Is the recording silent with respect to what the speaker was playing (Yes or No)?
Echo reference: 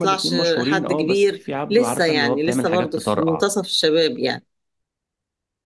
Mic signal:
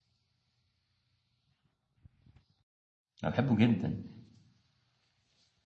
Yes